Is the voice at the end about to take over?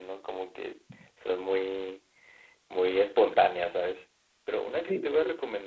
No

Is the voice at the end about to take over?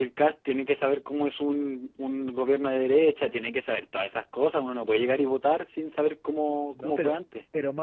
Yes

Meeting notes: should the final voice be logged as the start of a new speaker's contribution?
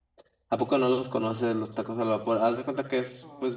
No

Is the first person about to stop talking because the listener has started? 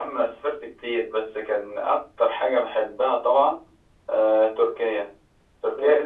No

